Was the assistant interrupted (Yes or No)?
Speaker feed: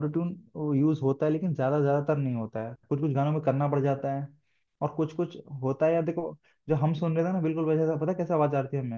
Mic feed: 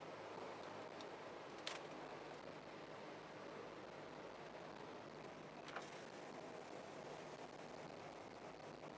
No